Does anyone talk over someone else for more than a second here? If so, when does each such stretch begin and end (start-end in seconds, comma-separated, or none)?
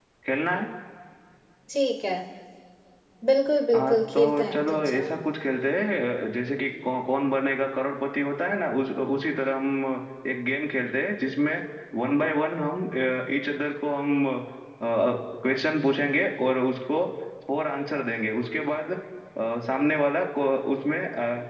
3.8-5.0